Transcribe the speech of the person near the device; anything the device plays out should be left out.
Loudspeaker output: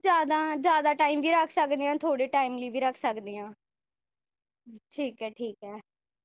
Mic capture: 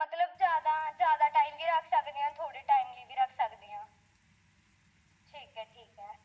none

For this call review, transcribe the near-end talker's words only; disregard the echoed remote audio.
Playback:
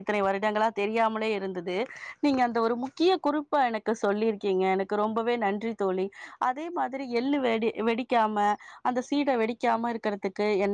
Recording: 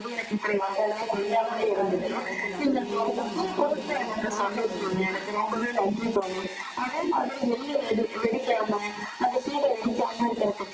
நல்லா ஒரு கரண்டி போட்டு நல்லா மசிங்க இல்லன்னா ஸ்மாஷர் இருந்ததுன்னா

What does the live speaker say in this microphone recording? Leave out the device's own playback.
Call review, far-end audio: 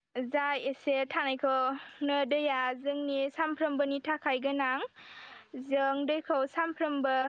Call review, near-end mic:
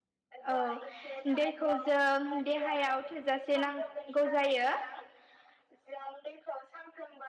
औ दैखौ जों देहायाव थोजासे नांगौ जायो

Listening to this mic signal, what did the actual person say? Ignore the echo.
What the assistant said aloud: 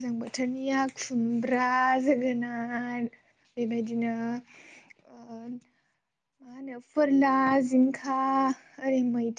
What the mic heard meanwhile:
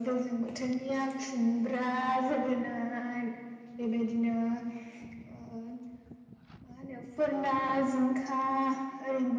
none

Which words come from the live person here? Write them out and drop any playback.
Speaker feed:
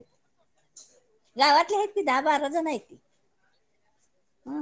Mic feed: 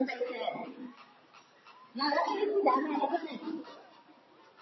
none

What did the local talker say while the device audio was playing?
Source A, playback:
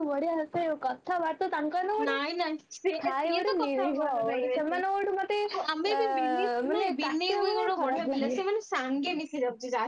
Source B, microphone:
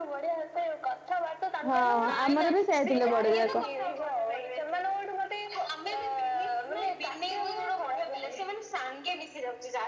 ହଁ ଆମର ବି ସେୟା ଥିଲେ ବଡଯାକ

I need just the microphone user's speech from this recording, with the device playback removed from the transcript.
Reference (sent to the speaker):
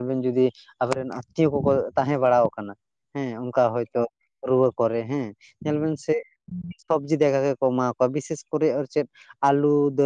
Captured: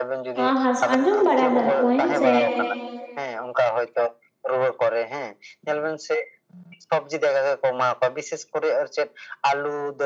ᱟ ᱦᱟᱸᱥ ᱟᱸᱡᱚᱢ ᱵᱟᱲᱟ ᱟᱠᱟᱫ ᱠᱚᱣᱟᱹᱧ ᱥᱮ

